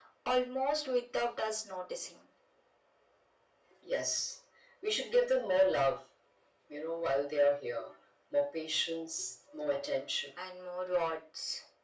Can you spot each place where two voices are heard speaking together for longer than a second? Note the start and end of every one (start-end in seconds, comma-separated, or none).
none